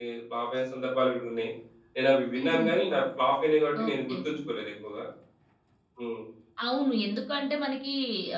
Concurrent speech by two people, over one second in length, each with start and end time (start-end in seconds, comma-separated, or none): none